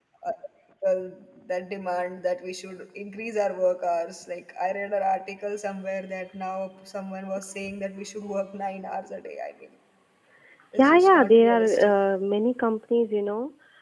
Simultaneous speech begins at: 10.8 s

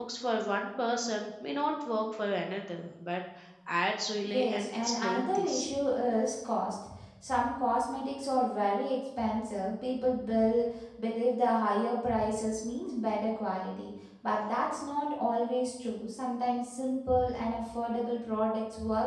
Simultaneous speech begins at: 4.3 s

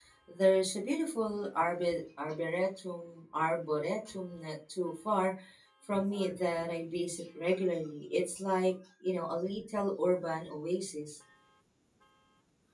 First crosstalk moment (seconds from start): none

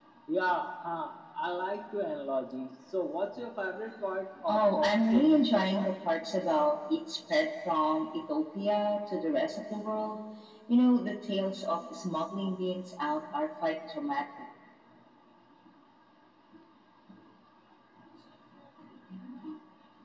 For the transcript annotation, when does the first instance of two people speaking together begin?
4.5 s

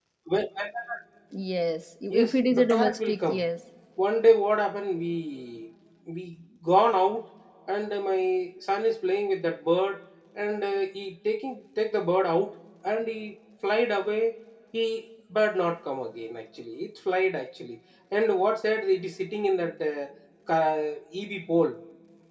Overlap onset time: 2.1 s

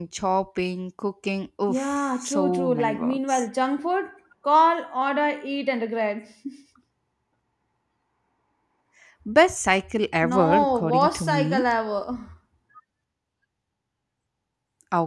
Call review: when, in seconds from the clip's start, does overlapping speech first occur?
1.7 s

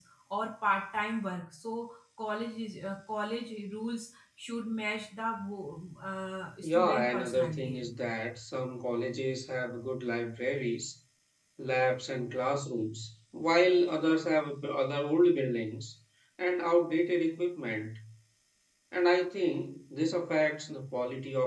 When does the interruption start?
6.6 s

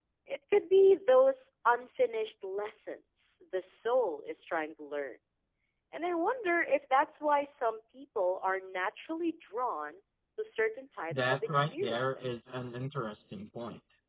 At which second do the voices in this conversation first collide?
11.1 s

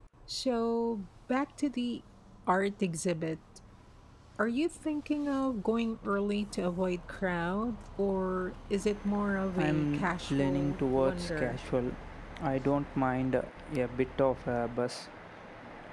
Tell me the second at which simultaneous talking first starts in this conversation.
9.6 s

